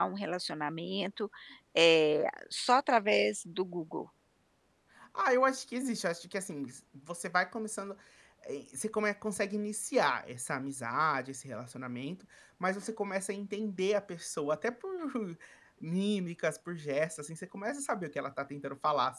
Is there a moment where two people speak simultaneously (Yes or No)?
No